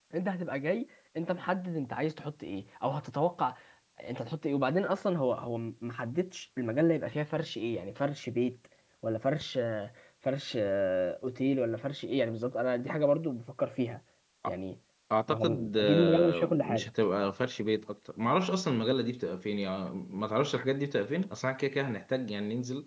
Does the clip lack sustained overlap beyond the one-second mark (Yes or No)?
No